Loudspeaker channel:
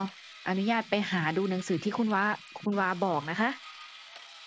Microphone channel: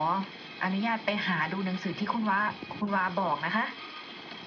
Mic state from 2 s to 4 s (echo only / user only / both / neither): echo only